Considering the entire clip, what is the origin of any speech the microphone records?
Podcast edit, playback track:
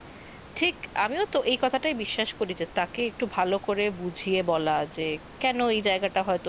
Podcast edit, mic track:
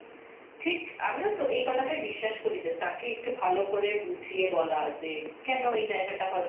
echo only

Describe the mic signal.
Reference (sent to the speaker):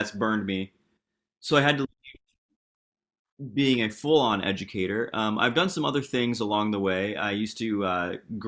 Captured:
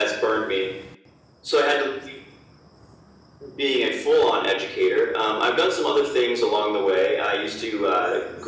echo only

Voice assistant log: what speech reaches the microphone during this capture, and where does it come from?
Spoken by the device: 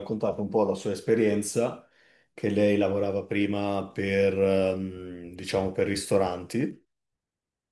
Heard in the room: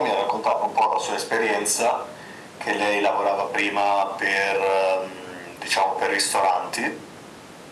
echo only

